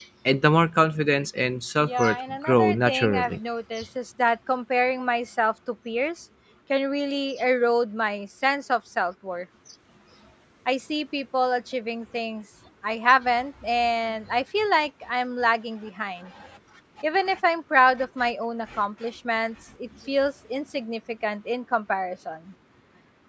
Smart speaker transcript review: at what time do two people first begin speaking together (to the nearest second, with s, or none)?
2 s